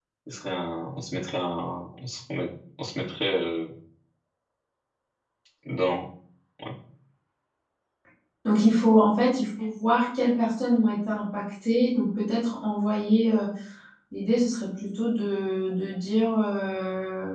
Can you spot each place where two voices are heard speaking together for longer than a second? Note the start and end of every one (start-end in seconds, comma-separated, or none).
none